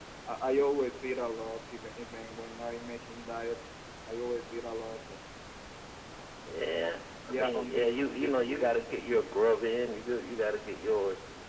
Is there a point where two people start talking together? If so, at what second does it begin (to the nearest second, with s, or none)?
7 s